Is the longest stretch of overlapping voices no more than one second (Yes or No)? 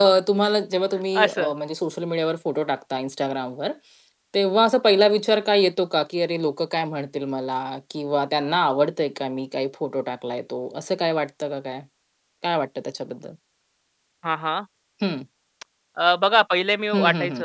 Yes